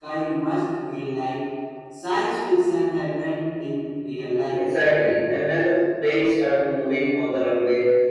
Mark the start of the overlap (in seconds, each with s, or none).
none